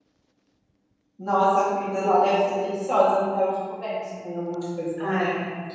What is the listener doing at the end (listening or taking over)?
taking over